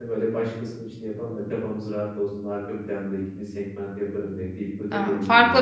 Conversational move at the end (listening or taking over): taking over